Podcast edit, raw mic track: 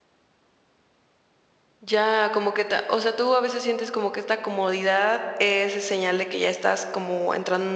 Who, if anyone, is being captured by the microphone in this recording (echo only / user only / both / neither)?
user only